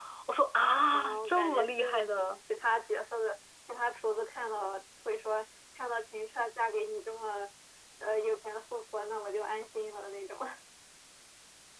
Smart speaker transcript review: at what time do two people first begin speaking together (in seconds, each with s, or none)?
0.9 s